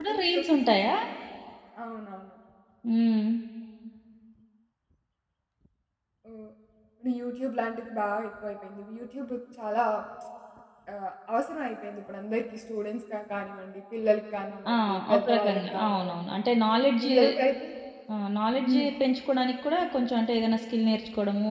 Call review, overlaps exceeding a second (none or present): present